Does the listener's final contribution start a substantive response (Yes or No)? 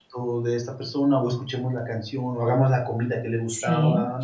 Yes